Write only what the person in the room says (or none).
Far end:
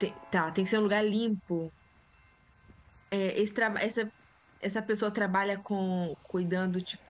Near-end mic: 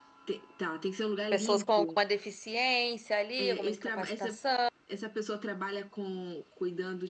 Pessoas com alguma deficiência ali, alguma incapacitação.